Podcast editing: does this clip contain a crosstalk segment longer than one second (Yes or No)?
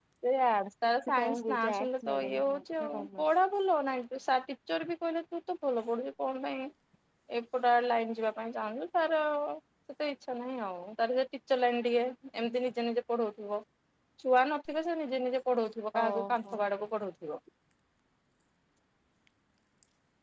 Yes